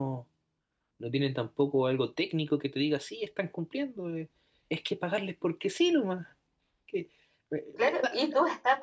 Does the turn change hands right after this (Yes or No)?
Yes